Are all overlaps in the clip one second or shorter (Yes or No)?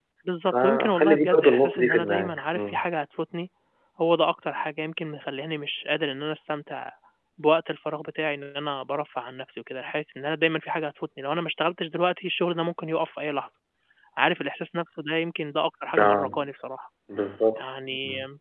No